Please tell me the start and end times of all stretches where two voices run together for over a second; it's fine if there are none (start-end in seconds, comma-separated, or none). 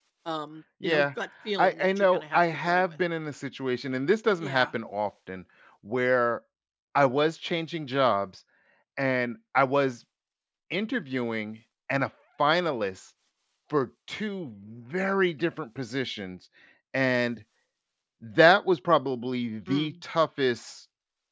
1.6-3.0